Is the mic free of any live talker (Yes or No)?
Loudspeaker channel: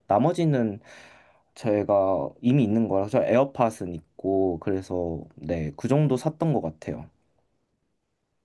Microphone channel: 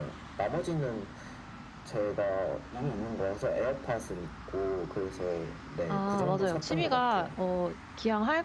No